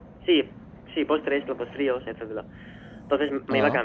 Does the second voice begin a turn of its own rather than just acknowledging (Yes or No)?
No